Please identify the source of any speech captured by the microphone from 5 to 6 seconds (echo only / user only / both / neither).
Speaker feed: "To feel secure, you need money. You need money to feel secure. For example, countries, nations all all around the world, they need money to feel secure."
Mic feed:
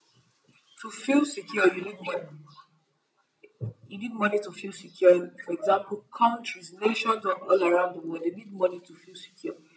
echo only